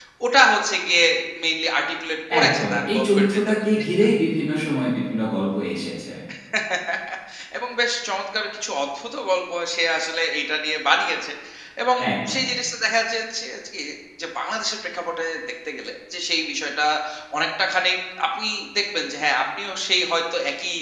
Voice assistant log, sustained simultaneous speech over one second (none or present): present